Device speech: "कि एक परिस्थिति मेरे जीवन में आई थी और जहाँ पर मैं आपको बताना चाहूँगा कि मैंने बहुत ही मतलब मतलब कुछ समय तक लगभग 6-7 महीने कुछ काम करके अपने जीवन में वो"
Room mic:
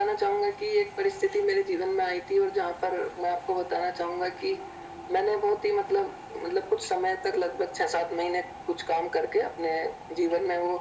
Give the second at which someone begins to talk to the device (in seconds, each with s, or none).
none